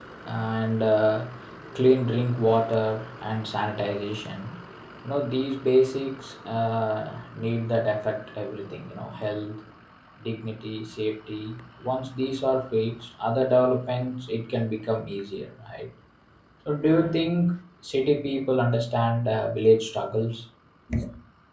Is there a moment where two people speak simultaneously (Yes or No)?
No